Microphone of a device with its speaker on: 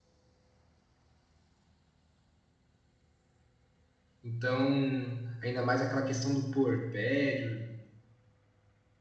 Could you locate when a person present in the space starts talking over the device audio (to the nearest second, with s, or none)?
4 s